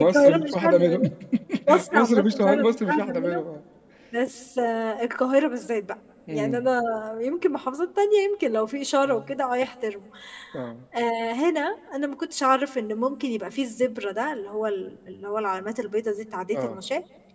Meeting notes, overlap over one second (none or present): present